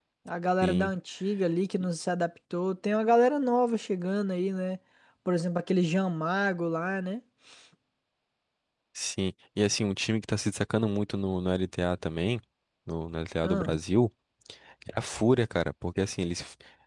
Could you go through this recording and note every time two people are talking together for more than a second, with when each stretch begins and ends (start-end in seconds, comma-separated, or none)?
none